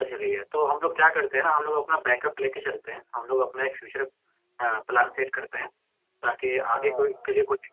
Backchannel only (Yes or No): Yes